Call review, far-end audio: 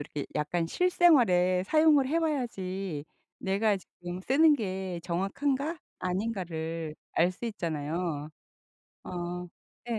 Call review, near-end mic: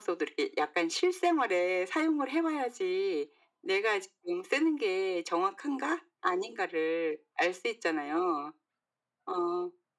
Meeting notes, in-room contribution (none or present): none